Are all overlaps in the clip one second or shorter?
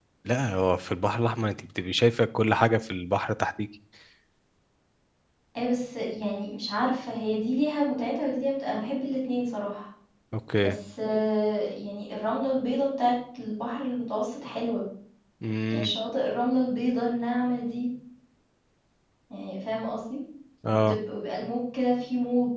Yes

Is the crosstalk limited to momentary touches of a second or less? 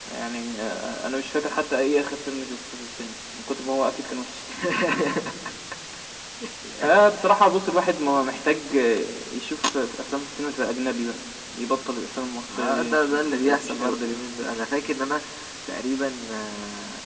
No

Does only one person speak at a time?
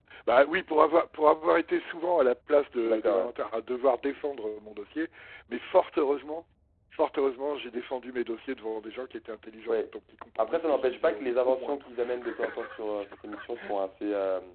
No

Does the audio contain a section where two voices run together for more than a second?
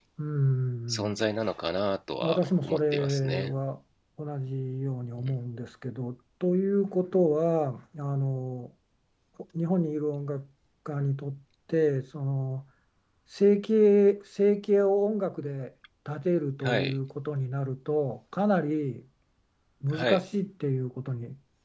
Yes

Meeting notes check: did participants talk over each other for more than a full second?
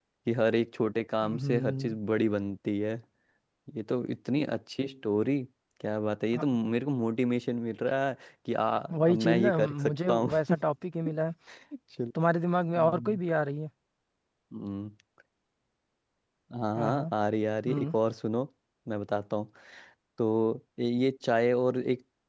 Yes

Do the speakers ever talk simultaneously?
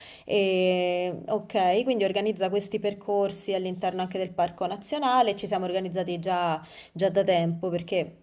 No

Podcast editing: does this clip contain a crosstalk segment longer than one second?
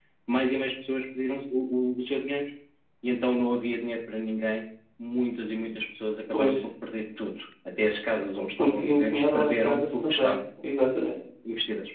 Yes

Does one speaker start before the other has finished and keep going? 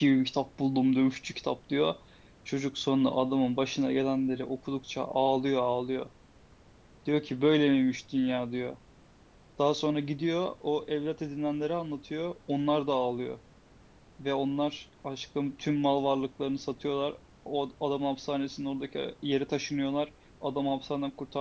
No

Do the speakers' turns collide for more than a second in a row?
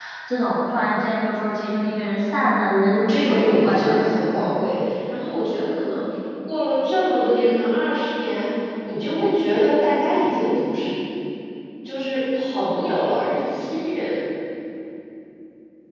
Yes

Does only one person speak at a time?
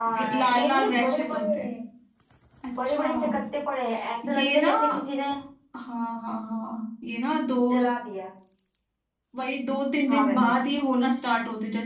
No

